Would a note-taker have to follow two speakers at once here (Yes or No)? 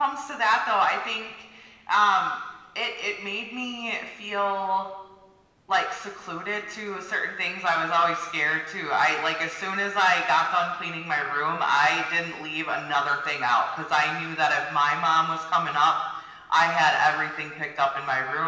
No